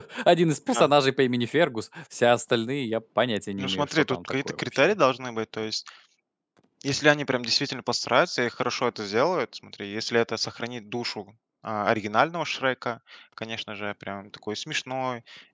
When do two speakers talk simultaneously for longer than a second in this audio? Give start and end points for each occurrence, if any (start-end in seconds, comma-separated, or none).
3.6-4.9